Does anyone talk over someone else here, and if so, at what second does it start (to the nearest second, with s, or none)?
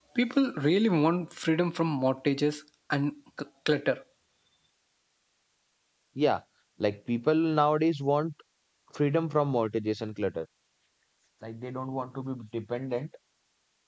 none